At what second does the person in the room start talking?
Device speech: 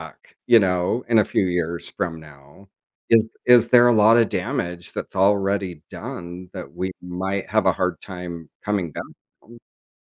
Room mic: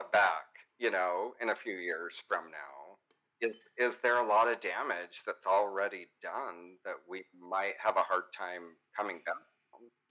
none

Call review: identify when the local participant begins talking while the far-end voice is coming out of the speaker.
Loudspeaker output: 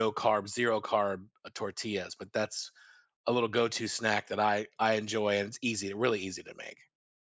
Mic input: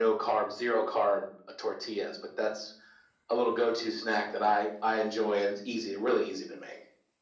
none

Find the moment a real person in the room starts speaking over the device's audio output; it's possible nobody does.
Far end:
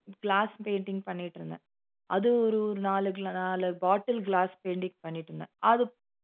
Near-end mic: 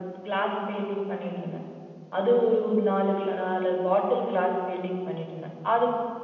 none

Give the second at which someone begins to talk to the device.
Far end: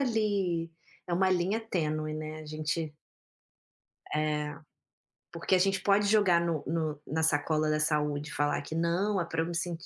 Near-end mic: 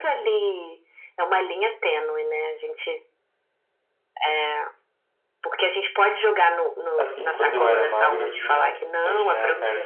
7.0 s

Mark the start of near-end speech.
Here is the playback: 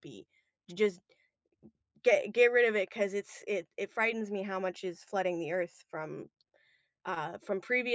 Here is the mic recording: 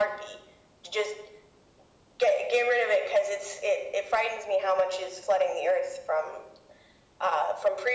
none

